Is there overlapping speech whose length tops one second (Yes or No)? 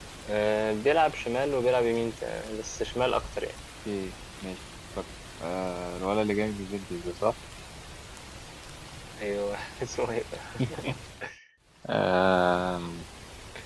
No